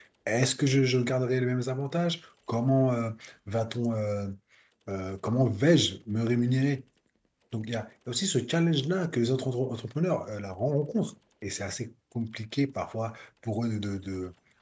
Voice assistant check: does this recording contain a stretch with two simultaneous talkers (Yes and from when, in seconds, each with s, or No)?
No